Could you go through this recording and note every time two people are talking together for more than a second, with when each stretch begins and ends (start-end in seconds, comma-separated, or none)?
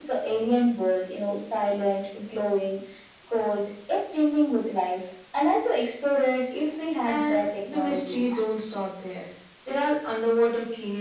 7.0-8.2